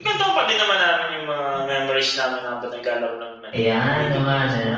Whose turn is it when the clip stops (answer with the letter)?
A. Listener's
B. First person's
A